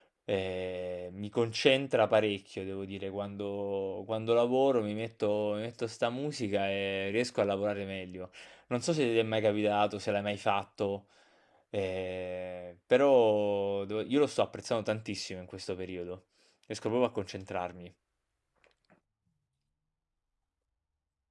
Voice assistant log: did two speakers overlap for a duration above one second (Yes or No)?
No